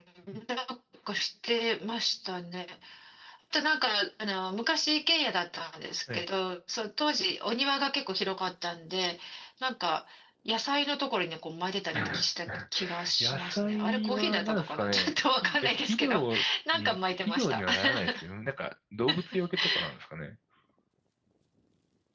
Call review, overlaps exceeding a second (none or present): present